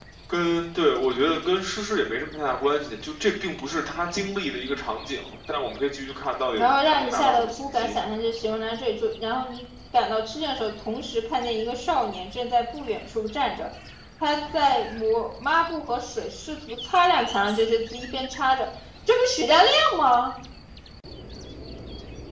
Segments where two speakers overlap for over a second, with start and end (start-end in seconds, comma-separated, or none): 6.6-8.0